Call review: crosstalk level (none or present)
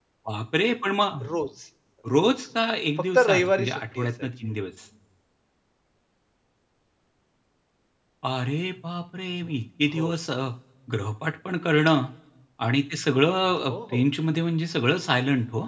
present